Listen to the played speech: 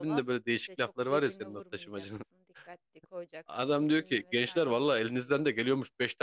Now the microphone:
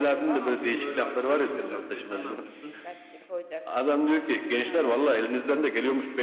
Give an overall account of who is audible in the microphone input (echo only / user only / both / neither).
both